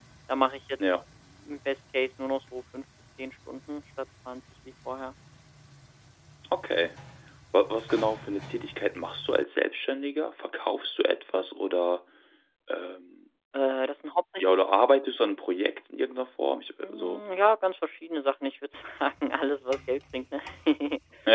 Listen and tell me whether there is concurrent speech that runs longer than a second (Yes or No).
No